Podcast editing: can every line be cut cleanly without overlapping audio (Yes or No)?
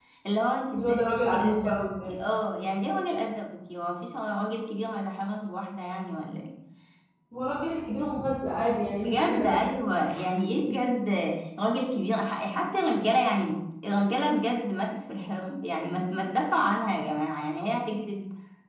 No